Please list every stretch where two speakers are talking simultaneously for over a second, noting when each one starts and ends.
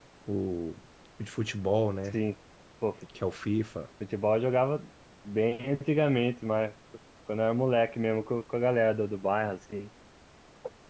none

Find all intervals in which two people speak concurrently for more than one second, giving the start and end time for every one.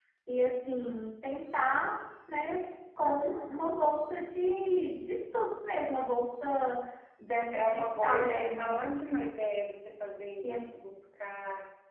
7.5-8.8

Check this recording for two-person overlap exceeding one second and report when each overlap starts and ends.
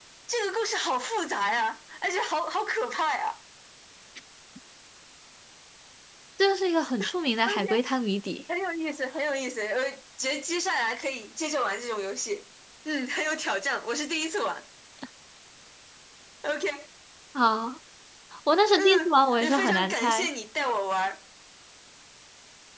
18.8-20.3

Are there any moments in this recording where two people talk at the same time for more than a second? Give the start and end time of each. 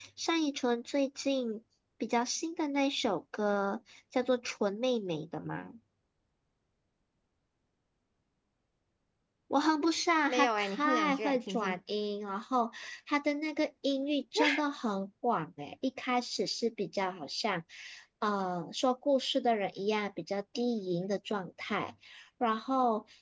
10.3-11.8

